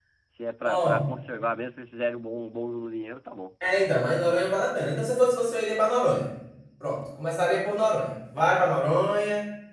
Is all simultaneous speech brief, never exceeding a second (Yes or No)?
Yes